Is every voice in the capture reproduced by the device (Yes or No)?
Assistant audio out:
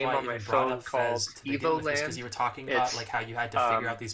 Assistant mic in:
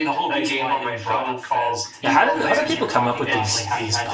No